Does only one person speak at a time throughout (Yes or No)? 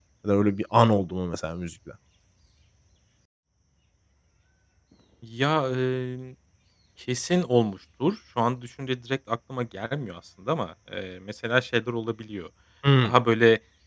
Yes